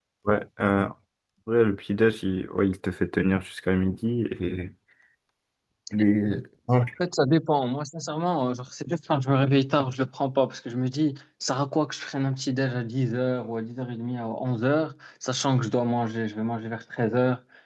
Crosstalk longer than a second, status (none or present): none